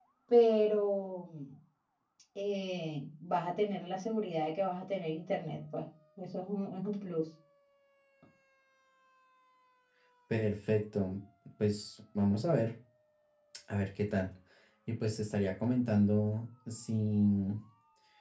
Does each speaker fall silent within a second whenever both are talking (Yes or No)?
Yes